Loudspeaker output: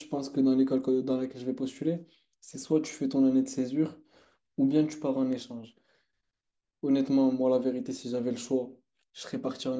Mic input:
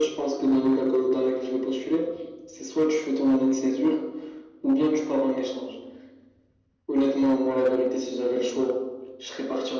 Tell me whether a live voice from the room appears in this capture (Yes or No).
No